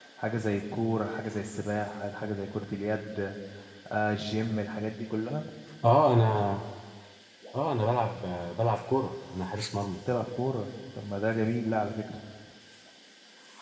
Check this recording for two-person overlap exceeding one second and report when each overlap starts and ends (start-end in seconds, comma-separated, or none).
none